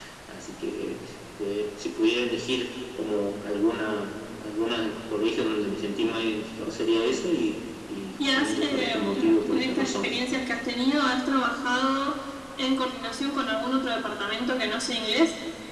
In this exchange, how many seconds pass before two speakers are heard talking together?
8.2 s

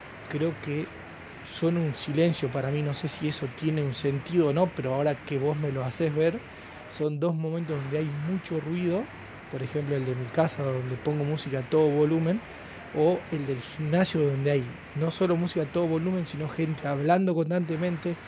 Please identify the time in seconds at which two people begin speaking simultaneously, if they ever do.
none

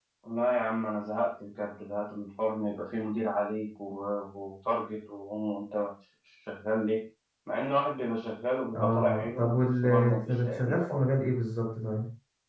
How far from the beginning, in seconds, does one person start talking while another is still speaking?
8.7 s

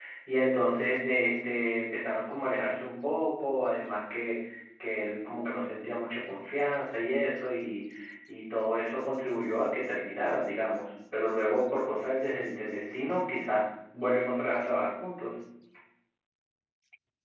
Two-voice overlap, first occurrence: none

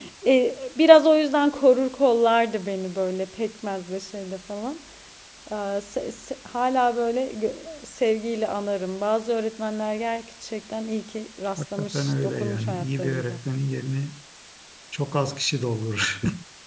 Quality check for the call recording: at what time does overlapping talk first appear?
11.6 s

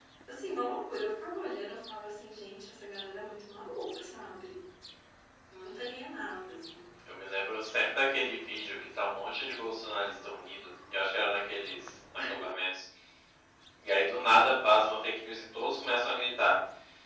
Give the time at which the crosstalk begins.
none

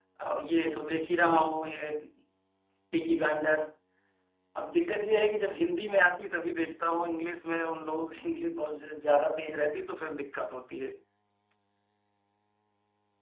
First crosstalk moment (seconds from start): none

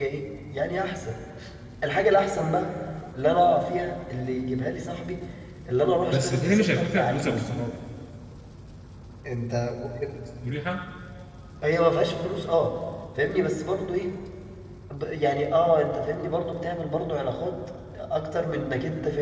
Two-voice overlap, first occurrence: 6.1 s

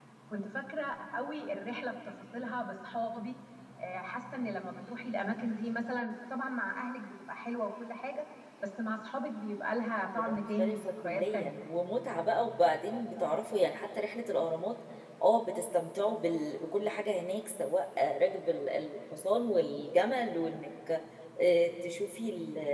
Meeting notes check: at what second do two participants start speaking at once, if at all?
10.2 s

